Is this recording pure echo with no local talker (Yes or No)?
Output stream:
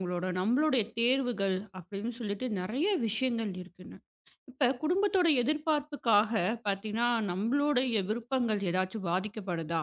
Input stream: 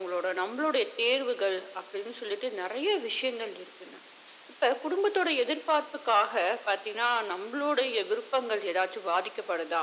Yes